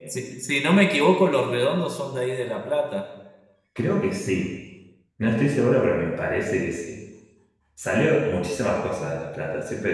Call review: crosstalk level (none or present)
none